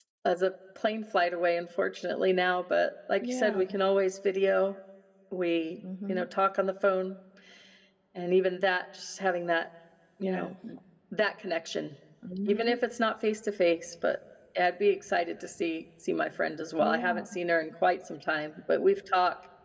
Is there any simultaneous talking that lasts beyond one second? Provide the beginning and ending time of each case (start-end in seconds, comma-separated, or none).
none